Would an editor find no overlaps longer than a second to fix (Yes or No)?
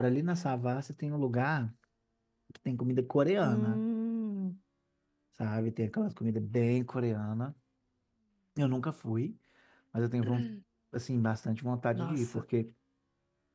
Yes